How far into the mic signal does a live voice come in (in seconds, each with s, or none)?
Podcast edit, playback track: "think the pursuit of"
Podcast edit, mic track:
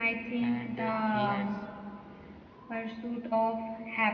0.4 s